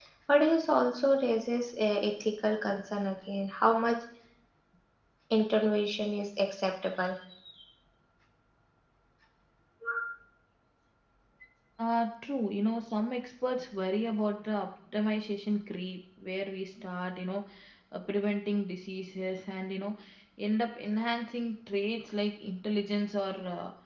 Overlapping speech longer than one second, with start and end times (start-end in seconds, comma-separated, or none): none